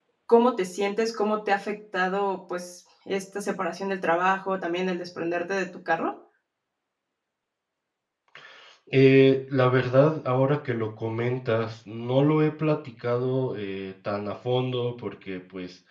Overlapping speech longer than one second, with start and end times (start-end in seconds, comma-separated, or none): none